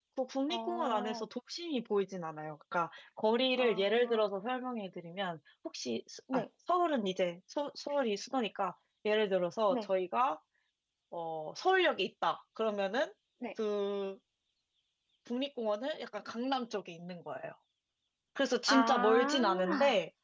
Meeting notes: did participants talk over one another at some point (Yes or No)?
Yes